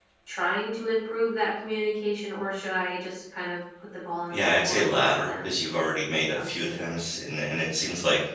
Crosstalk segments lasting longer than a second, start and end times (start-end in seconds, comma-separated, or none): 4.3-5.5